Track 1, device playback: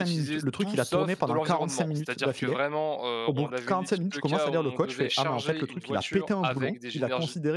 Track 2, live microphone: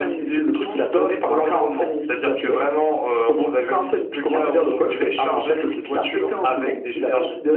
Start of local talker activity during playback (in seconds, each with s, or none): none